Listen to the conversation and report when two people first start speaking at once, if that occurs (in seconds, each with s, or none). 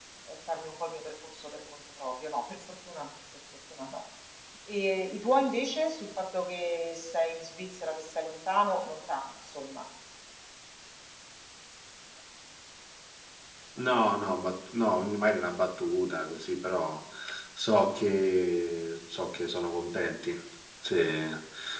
none